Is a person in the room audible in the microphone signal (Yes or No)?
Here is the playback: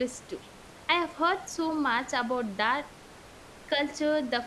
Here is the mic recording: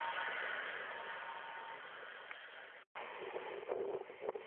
No